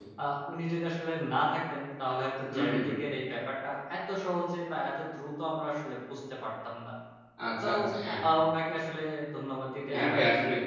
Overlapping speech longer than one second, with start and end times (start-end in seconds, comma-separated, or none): none